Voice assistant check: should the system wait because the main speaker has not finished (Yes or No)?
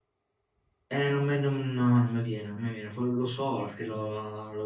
Yes